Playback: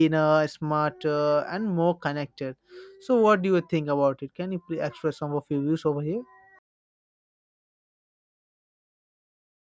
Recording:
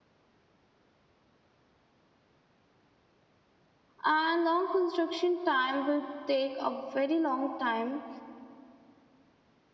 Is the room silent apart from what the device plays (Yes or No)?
No